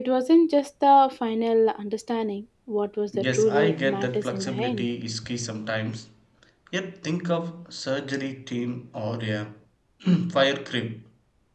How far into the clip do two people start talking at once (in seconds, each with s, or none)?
3.1 s